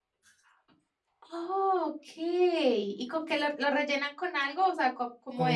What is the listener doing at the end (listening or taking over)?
taking over